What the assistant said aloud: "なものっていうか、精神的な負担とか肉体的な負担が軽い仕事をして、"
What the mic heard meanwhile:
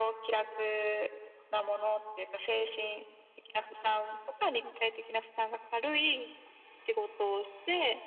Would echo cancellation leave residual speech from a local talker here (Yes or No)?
No